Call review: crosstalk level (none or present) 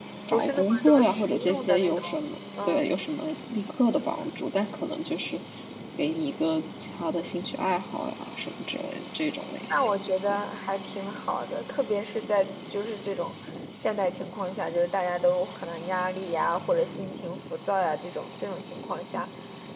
present